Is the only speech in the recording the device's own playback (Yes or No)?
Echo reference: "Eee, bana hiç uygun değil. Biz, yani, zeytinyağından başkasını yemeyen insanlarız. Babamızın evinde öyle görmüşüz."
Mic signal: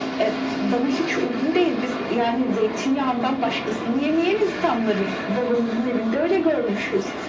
Yes